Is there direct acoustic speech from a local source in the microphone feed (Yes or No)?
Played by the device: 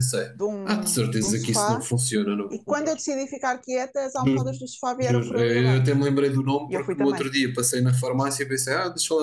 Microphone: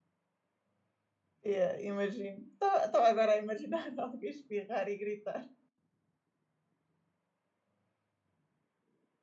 Yes